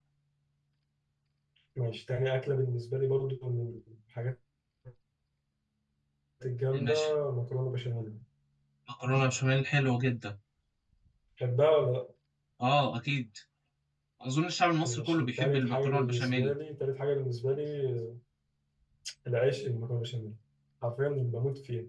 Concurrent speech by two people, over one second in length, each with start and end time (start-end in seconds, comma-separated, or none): 14.8-16.5